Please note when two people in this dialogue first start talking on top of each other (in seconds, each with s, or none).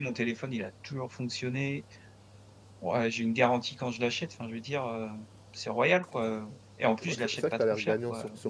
7.0 s